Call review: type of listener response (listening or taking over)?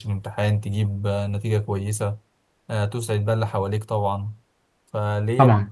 listening